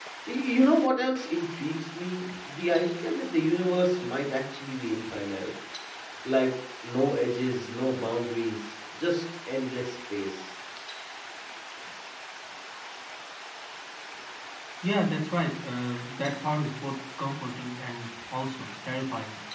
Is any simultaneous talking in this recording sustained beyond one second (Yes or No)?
No